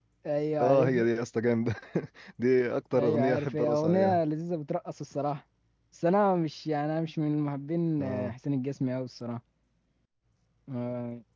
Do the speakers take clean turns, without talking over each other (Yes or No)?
No